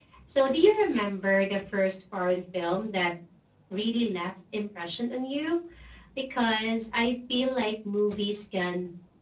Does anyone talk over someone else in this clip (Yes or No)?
No